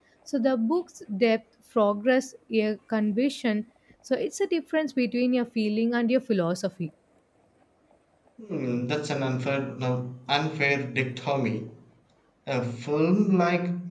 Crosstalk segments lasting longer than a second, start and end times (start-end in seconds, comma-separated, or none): none